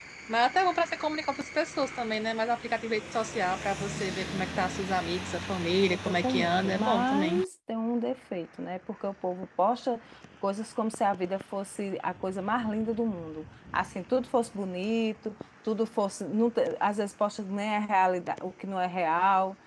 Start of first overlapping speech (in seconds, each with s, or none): 6.0 s